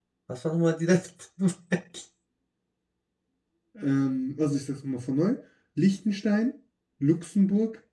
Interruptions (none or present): none